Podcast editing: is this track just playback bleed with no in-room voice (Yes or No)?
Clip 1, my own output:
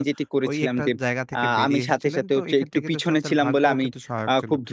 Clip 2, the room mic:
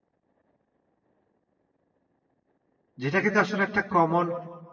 No